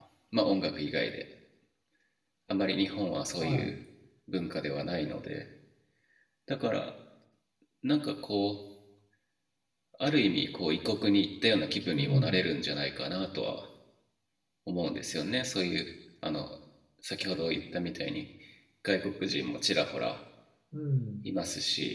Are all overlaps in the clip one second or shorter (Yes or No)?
Yes